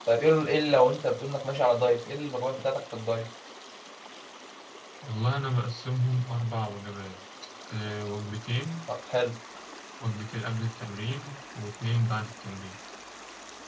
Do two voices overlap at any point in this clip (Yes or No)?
No